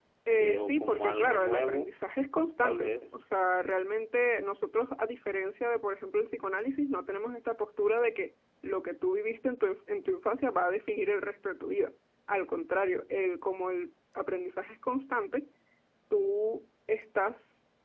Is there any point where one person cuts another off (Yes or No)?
Yes